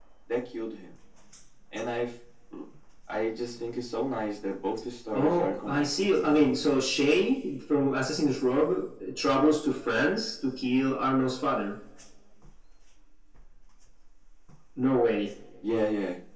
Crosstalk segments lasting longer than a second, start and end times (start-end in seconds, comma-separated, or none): 5.1-6.4